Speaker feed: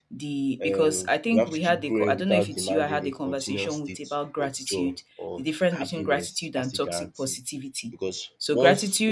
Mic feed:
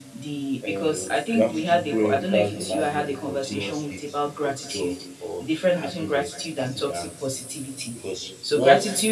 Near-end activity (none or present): none